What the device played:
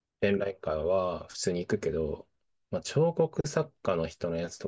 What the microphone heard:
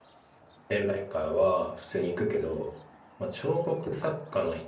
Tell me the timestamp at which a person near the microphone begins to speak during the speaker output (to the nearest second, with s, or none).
none